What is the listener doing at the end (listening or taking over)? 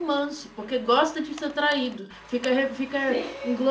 listening